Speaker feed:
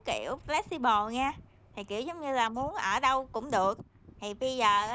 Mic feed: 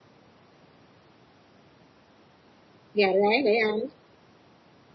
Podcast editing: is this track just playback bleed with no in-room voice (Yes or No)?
No